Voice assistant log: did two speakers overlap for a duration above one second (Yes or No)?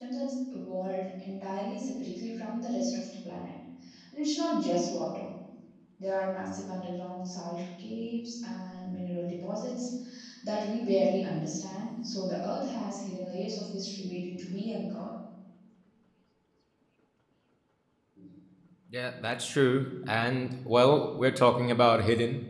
No